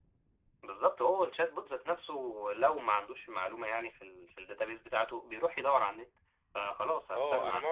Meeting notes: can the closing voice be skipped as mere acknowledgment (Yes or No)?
No